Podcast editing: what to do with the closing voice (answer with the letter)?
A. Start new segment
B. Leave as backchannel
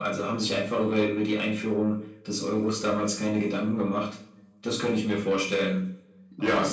A